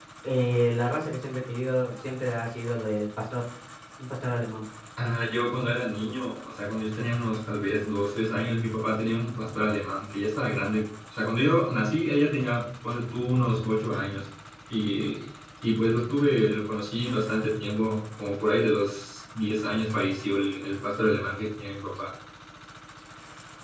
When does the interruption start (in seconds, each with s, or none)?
none